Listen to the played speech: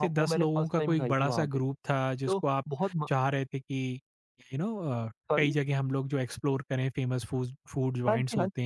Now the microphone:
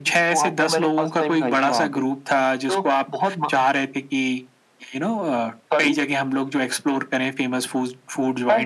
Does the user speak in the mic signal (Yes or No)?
No